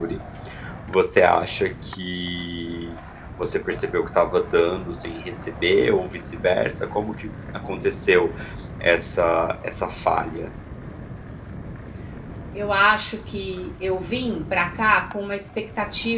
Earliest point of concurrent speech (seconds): none

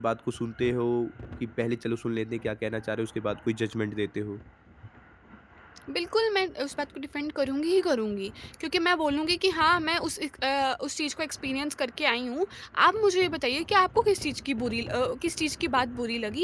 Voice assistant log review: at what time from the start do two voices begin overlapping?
none

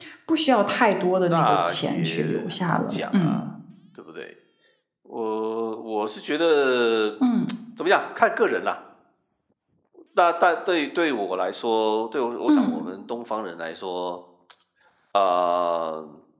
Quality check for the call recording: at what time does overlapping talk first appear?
1 s

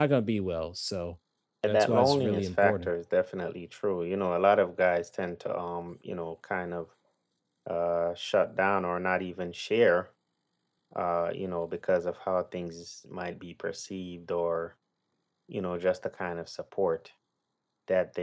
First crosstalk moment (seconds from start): 2 s

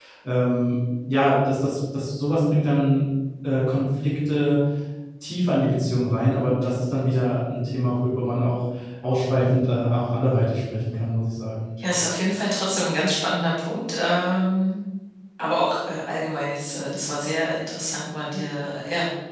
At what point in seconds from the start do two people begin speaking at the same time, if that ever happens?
none

